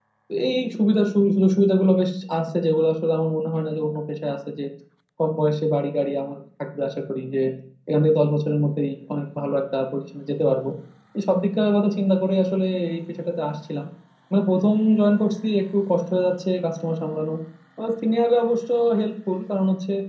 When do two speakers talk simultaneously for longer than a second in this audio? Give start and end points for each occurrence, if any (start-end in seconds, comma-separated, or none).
none